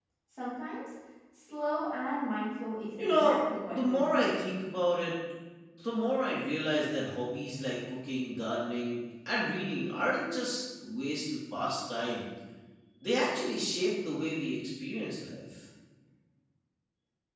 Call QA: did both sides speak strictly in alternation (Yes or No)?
No